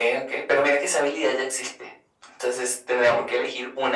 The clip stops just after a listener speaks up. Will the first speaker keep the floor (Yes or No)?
Yes